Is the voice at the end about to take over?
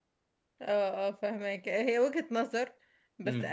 No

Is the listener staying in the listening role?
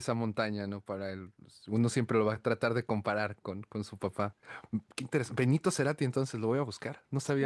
No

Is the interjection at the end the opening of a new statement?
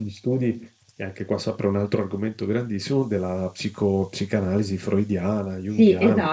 Yes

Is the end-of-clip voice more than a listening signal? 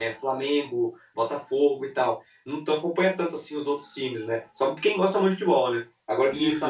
No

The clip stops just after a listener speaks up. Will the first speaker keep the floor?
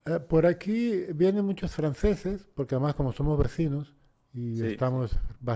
Yes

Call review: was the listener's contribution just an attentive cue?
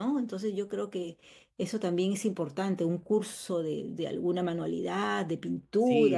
No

